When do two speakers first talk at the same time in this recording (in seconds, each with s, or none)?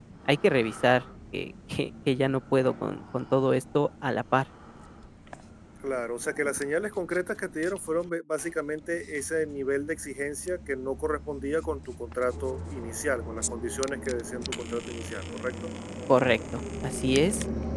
none